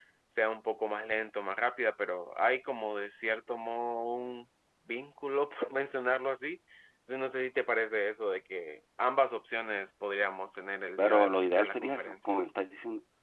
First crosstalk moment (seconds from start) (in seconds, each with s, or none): 11.0 s